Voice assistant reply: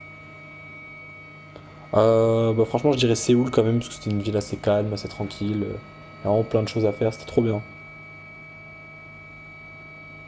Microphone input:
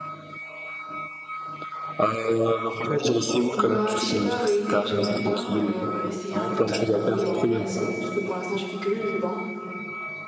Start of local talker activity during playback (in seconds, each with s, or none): 3.5 s